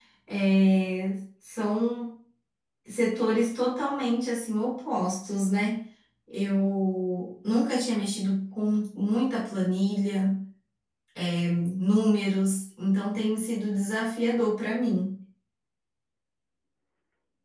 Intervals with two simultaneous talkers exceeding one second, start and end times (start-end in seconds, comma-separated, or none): none